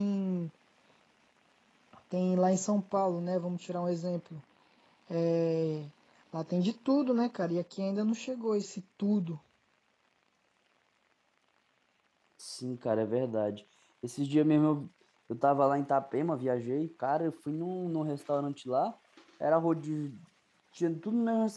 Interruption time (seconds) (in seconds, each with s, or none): none